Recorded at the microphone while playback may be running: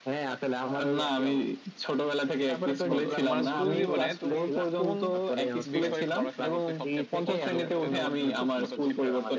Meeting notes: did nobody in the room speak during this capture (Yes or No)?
No